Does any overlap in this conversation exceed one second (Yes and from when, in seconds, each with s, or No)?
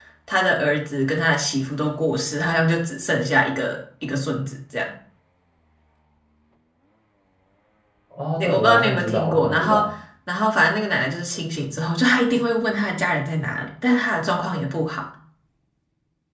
Yes, from 8.4 s